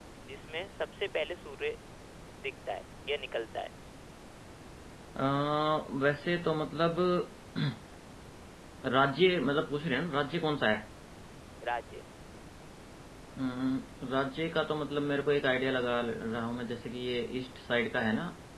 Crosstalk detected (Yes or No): No